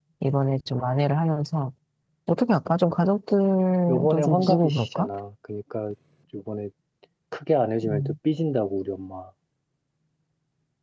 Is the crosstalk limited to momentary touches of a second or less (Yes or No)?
No